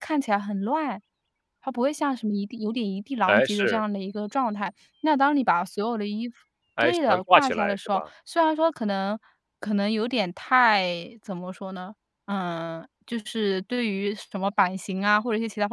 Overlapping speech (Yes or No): Yes